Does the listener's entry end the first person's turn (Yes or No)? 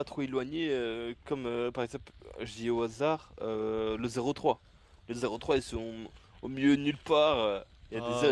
No